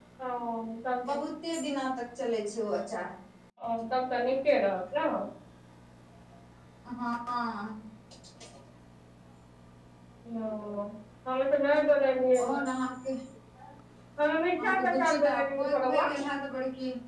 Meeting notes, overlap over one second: present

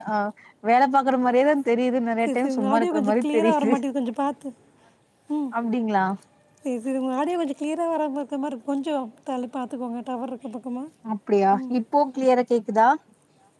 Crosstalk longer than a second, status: present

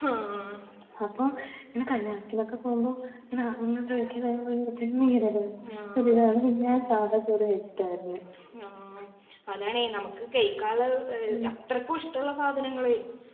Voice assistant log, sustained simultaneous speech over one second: none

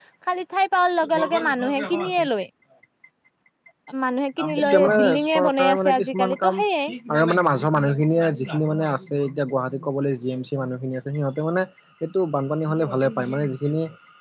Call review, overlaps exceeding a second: present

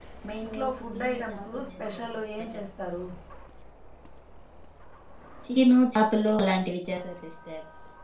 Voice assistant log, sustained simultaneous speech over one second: present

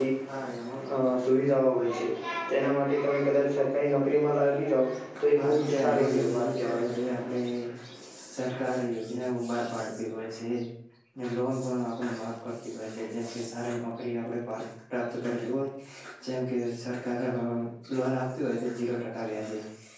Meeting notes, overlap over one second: present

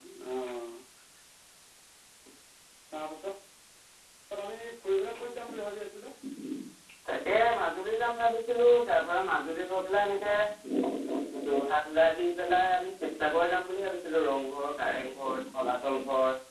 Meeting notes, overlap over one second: none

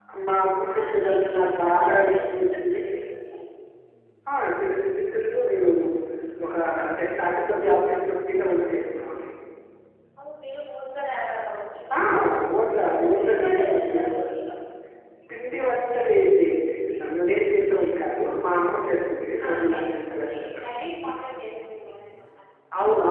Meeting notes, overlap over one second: present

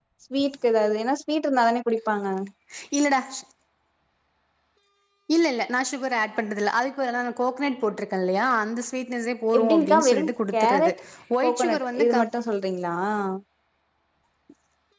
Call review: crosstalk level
present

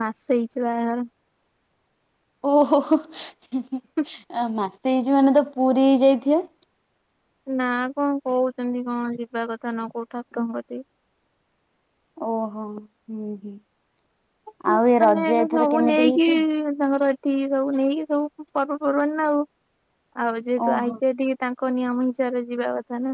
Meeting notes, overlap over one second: present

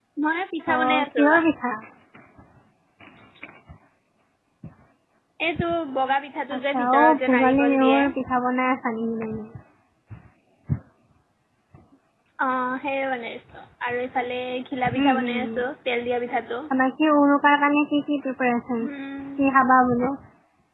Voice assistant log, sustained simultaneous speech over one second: present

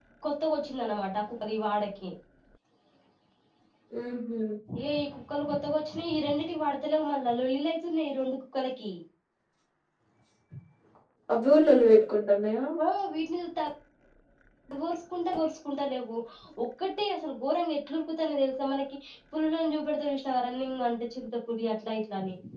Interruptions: none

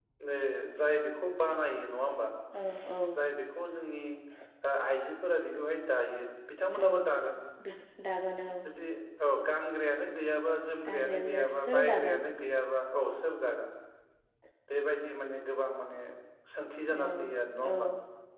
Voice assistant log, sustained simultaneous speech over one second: present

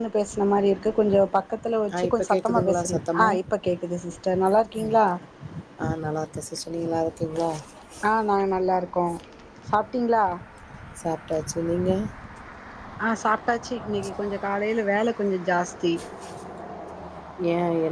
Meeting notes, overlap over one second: present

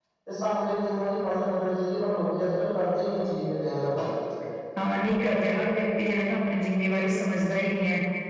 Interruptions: none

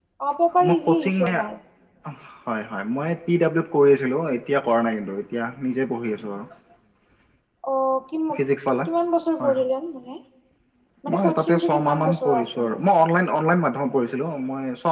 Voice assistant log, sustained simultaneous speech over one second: present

